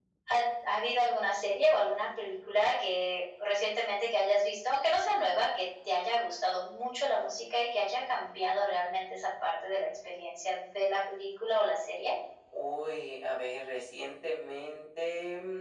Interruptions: none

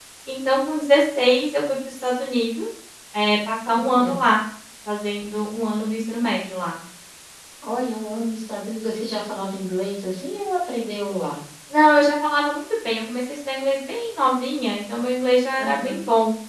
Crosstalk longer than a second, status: none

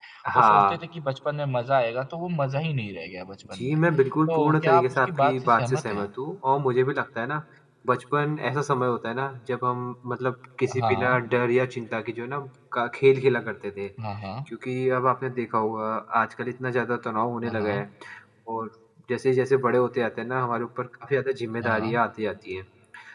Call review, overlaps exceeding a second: present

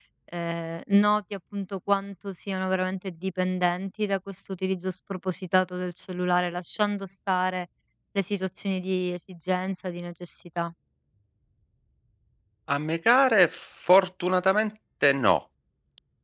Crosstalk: none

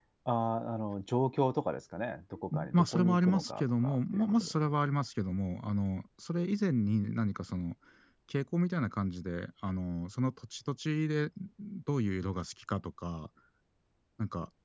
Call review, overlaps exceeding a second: present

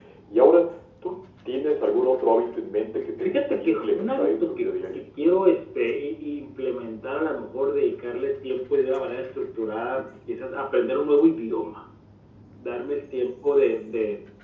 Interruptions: present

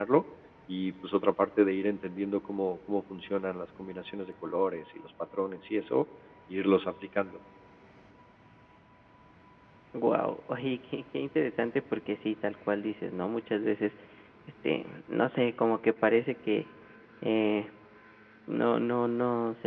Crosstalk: none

